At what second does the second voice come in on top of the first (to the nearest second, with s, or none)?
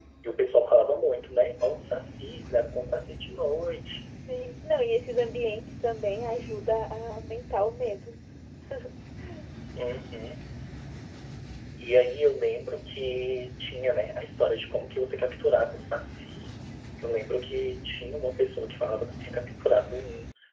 none